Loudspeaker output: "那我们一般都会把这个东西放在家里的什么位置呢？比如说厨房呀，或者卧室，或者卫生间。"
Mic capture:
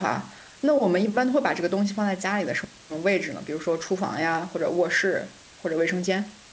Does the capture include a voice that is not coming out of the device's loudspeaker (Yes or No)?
No